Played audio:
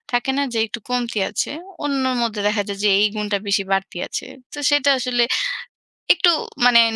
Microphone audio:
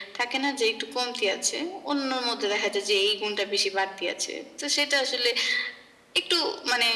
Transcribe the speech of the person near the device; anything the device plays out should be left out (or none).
none